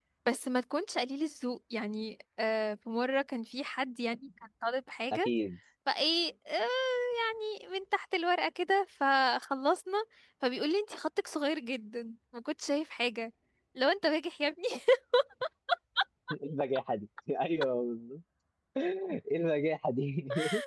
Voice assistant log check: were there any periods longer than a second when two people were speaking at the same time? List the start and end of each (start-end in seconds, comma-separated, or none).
none